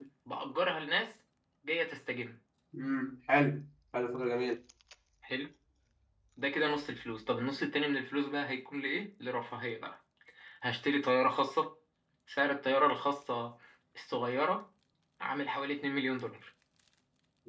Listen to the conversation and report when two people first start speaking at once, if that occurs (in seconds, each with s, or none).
none